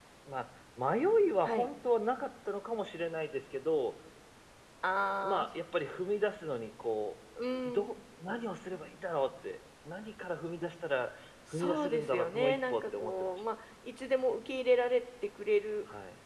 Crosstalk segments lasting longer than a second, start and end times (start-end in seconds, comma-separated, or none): 11.5-13.4